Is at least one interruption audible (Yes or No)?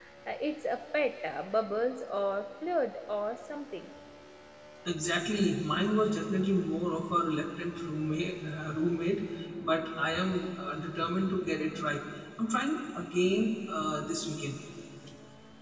No